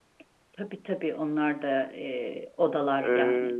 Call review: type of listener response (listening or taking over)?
taking over